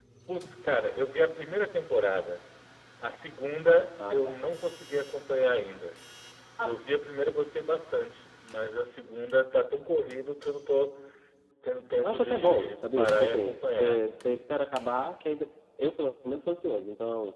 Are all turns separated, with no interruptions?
No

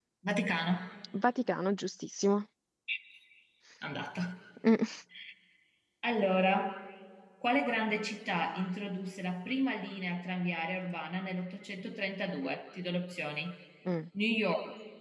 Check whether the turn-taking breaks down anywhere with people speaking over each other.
No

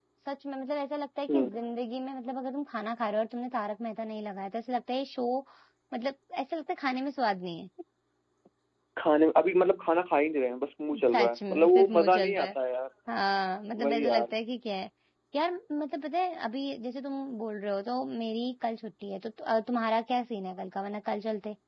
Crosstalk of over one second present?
Yes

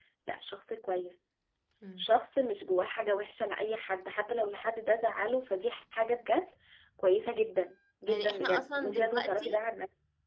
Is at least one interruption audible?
Yes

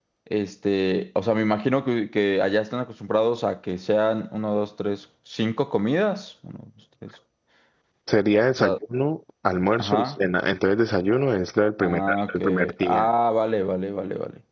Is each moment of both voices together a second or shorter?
No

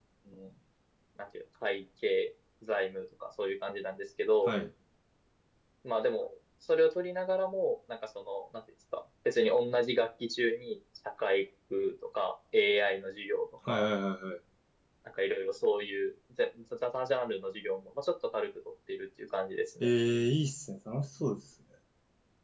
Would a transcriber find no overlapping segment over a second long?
Yes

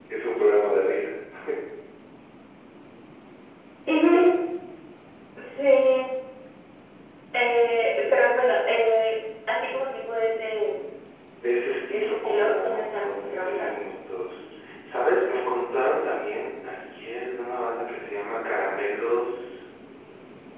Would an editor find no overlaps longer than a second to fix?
No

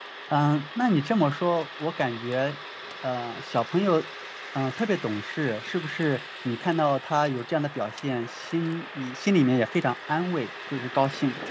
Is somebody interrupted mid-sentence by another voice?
No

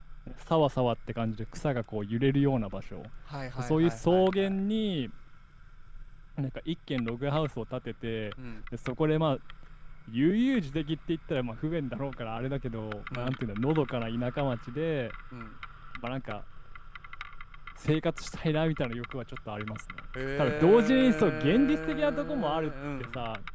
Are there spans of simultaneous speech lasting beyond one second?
Yes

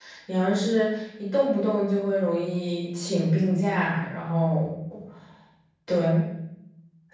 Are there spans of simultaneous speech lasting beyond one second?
No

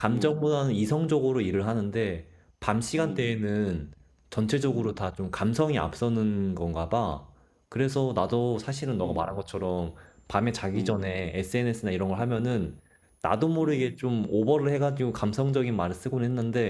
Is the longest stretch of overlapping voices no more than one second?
Yes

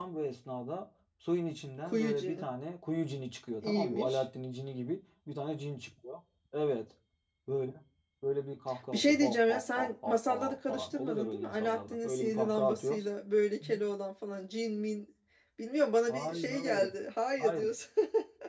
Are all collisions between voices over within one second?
No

